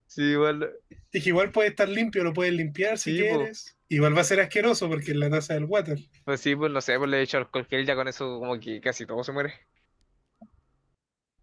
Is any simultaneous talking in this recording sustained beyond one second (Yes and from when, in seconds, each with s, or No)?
No